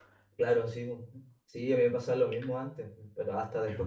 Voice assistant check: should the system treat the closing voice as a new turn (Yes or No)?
No